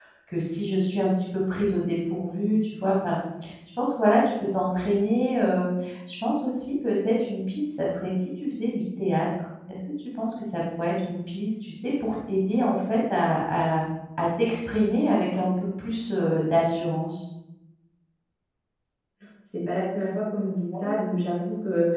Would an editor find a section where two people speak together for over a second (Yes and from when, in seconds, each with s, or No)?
No